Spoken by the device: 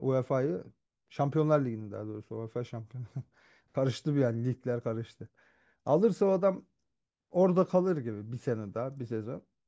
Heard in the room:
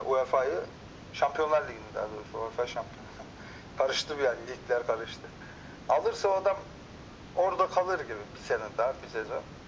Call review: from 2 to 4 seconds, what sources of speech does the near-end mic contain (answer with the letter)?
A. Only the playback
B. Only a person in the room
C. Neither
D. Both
A